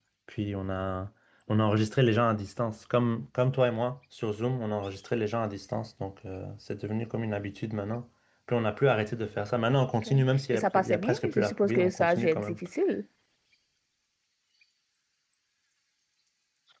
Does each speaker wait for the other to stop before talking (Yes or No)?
No